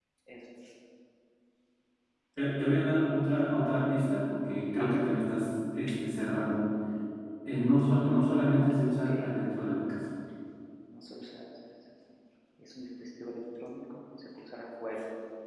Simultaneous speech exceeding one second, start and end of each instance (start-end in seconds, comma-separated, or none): none